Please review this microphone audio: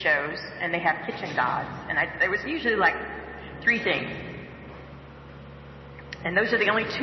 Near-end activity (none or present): none